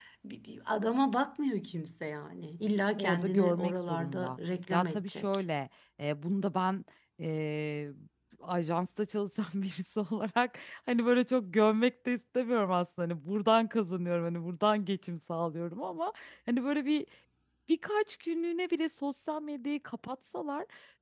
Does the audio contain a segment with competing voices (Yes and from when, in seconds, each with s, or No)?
Yes, from 3.0 s